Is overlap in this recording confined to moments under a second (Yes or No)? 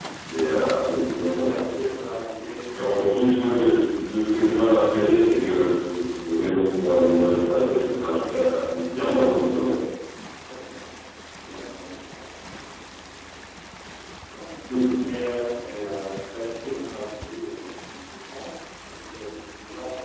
Yes